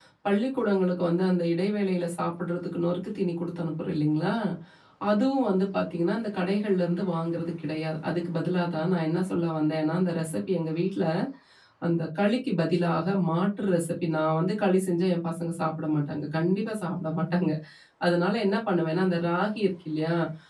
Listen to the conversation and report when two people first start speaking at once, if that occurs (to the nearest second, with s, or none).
none